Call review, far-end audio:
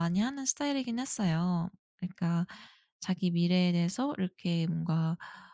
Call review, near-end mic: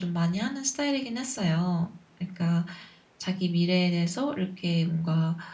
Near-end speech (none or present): none